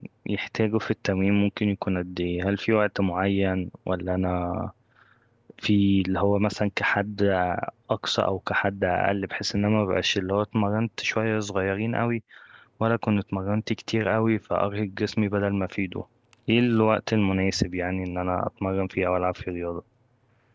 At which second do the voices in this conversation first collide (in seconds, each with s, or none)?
none